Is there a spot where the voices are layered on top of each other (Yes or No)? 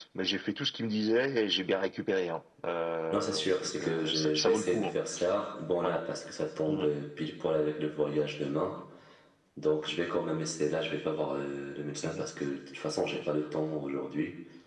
Yes